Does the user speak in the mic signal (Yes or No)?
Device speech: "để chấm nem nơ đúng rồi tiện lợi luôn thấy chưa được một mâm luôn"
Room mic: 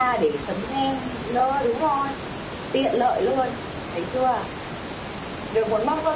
No